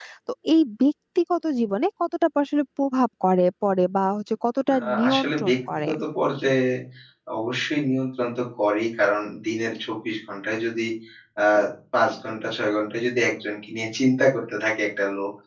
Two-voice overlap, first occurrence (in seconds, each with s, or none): 4.7 s